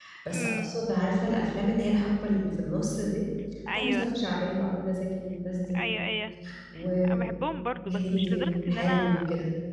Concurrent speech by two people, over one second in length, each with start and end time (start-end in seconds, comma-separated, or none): 7.8-9.2